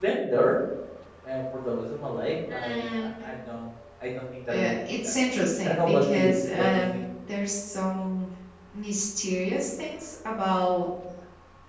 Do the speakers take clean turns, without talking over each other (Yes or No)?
No